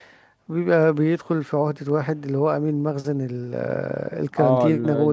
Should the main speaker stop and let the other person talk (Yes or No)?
Yes